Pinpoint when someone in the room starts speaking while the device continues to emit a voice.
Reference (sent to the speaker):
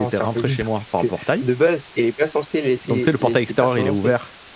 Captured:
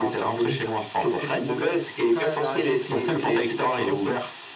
1.0 s

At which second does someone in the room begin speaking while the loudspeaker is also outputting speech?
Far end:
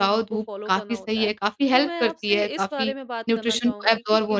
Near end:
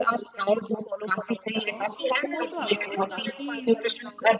1.7 s

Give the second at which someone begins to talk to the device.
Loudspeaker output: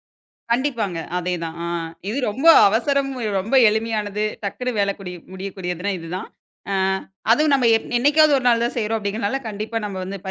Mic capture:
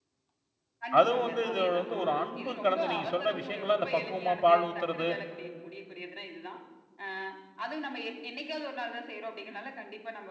1.0 s

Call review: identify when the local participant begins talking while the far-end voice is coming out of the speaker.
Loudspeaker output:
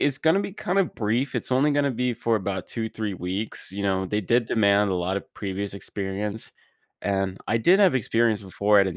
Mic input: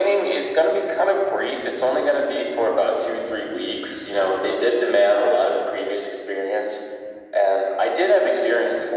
none

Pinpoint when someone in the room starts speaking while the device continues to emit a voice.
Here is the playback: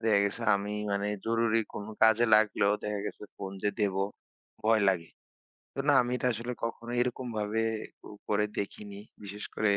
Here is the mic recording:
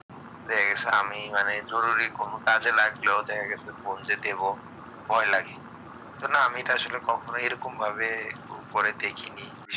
none

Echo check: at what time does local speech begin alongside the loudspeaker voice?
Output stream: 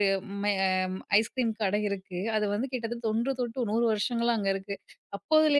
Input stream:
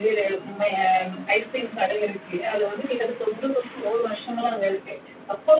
none

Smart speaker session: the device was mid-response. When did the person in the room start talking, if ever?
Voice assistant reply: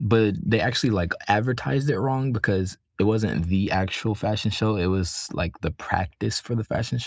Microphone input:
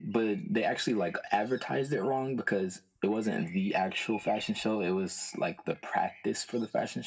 none

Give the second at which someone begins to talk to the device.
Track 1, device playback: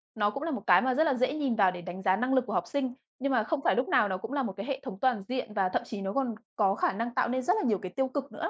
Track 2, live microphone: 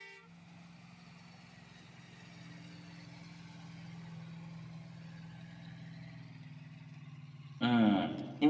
7.6 s

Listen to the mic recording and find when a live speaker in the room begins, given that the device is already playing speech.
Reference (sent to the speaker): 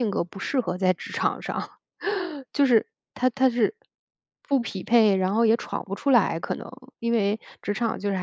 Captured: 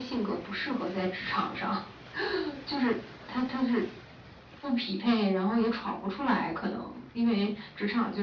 none

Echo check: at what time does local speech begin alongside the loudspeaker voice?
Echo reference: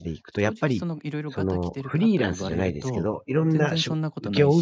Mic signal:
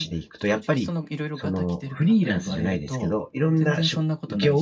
none

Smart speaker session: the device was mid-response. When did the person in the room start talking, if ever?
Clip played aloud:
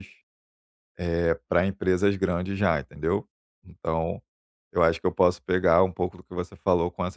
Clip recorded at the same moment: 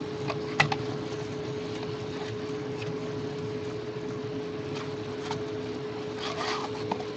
none

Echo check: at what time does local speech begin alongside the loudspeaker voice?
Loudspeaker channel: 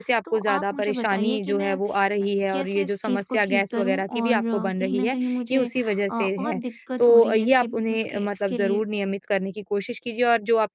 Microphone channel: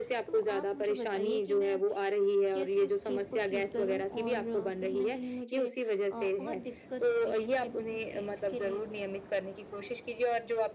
none

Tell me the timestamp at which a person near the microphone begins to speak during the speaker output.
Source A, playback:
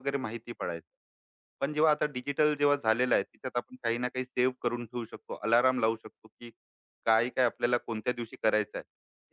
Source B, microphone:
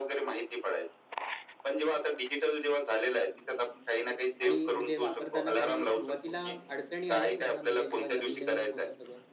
4.4 s

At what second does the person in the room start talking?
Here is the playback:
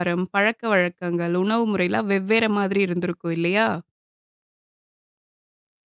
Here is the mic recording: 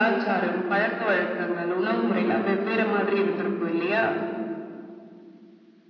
none

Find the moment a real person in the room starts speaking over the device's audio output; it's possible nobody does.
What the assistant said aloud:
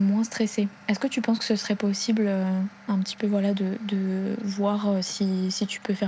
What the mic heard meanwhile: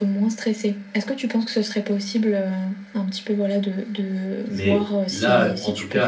4.5 s

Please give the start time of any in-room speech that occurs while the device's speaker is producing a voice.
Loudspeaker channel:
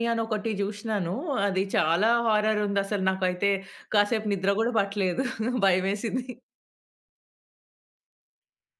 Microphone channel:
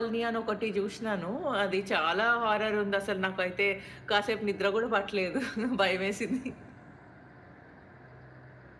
none

